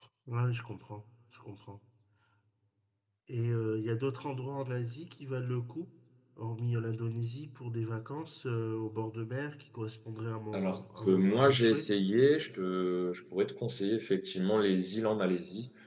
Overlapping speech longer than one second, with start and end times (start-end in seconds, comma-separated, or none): 10.5-11.9